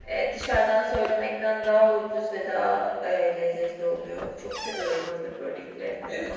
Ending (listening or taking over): taking over